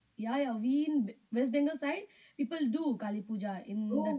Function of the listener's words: taking over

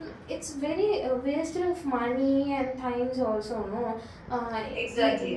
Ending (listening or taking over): taking over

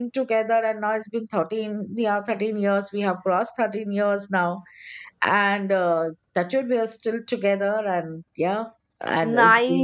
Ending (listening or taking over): taking over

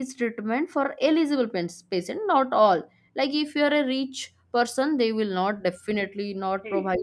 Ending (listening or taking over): taking over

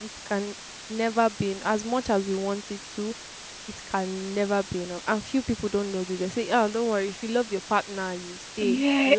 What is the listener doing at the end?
taking over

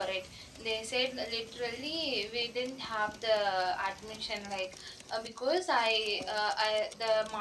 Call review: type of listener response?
listening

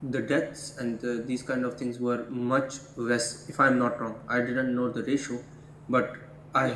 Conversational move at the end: listening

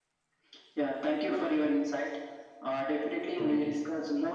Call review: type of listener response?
listening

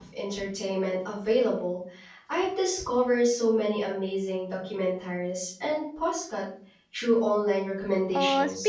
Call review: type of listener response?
taking over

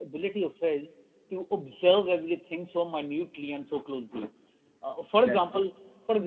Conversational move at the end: listening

